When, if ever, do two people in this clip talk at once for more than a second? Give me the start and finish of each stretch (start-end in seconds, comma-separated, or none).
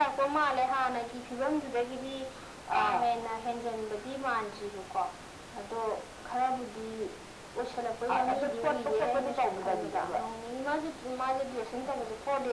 8.3-10.0